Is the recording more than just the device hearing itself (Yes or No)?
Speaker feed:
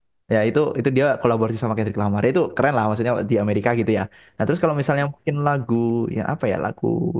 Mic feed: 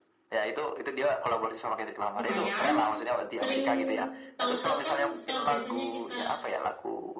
Yes